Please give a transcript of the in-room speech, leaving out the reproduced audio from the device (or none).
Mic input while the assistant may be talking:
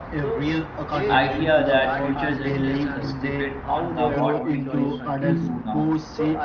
idea that future generations depend on the what we choose to do now?